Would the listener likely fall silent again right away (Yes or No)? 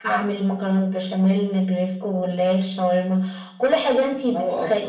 No